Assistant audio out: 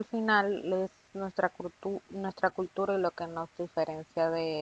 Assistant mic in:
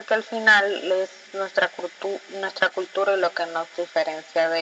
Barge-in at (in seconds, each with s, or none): none